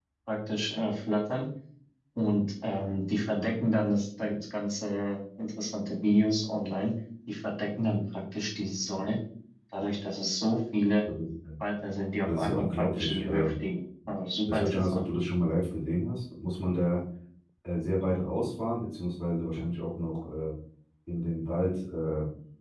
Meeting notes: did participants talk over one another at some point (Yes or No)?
Yes